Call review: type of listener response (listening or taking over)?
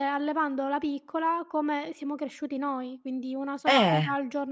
listening